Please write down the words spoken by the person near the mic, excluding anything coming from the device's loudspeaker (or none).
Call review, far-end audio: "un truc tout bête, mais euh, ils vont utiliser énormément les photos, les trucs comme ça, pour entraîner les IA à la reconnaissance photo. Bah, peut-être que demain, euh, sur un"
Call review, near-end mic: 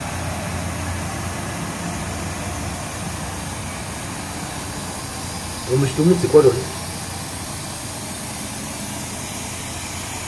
pour Monsieur Tout le Monde, c'est quoi le risque